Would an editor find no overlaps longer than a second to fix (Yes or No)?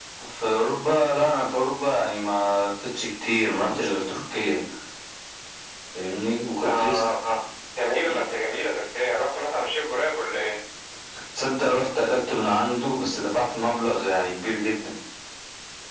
Yes